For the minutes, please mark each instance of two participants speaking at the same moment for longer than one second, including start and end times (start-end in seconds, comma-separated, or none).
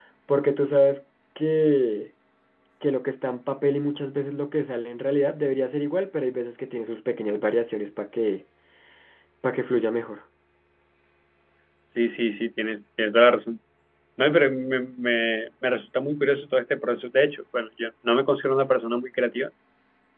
none